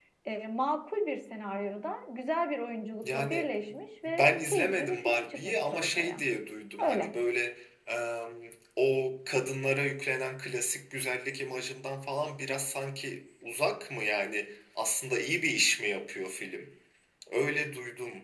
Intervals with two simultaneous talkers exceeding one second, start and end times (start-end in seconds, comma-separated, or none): 4.2-6.2